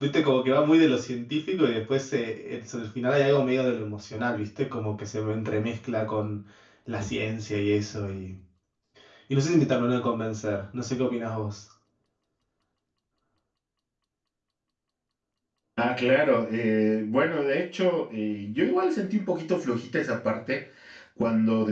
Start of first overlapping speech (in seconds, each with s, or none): none